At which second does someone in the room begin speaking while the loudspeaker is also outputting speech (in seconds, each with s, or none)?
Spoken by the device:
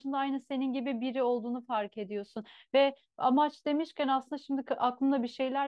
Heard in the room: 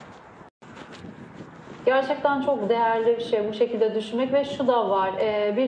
1.8 s